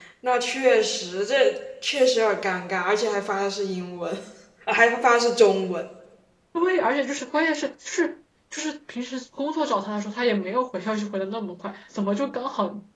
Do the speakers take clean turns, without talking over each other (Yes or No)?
Yes